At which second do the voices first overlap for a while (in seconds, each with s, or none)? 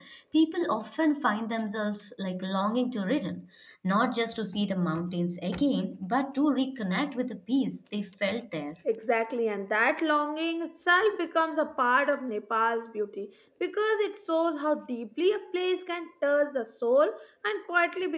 none